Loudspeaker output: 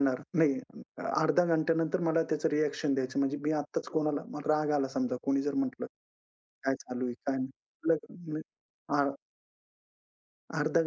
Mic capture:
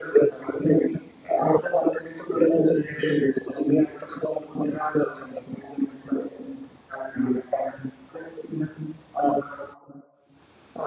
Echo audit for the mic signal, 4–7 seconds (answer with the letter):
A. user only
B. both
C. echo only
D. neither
C